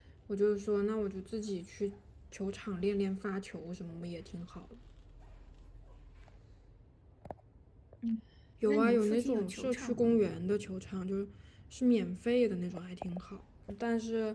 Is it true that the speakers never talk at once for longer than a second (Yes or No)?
No